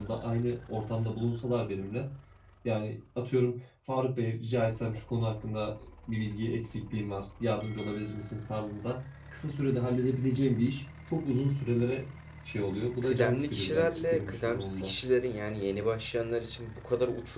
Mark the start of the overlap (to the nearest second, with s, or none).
13 s